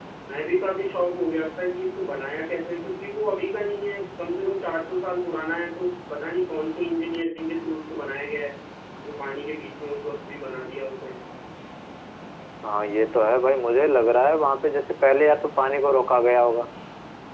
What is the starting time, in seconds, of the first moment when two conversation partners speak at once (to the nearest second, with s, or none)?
none